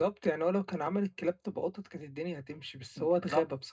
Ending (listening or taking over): taking over